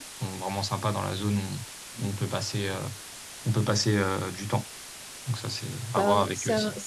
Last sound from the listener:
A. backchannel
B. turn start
B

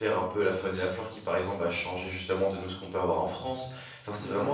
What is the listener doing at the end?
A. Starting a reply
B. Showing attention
B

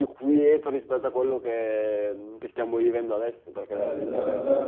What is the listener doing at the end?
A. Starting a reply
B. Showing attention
A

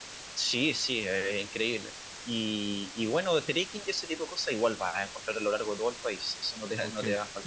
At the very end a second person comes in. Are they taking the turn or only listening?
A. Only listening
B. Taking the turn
B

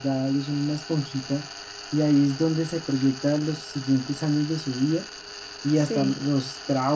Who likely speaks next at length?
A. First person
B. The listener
A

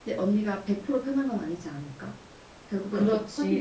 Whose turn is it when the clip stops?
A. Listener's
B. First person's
A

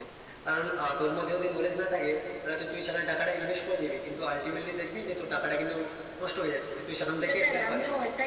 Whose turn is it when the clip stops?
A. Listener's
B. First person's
A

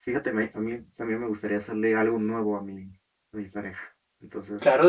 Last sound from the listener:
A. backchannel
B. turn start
B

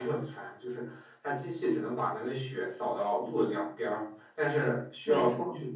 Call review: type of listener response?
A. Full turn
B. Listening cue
B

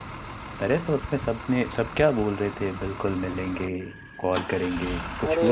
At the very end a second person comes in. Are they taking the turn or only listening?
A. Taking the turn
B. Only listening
A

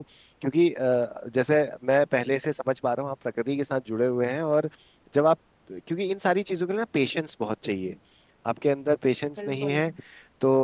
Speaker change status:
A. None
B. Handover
A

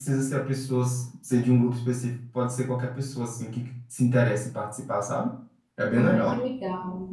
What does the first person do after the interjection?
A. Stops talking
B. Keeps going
A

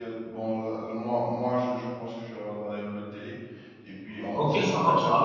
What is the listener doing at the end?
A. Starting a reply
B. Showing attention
A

